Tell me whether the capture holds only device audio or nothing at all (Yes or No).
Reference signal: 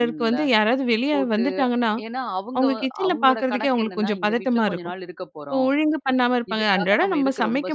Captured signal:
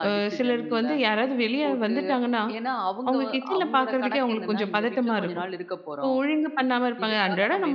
Yes